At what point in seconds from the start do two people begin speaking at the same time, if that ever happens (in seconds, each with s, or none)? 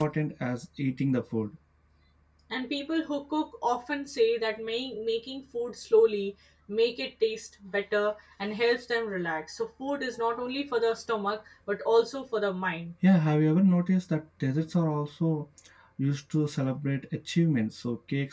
none